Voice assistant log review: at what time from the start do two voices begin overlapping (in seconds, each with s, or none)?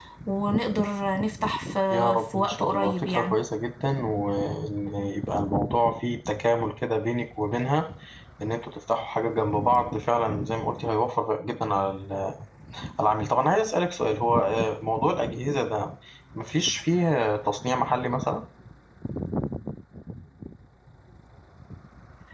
1.9 s